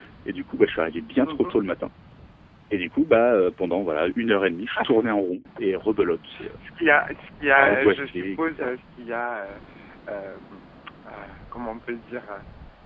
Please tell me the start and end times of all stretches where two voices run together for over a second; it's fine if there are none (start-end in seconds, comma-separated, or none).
7.5-8.8